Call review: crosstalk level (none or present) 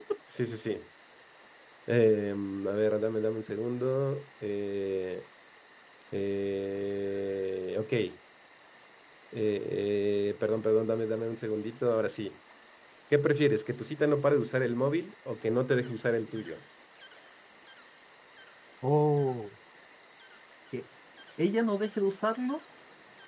none